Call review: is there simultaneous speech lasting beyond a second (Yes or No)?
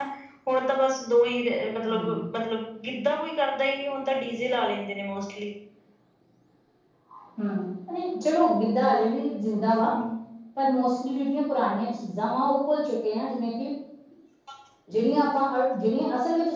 No